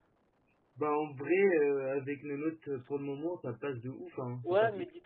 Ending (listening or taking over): taking over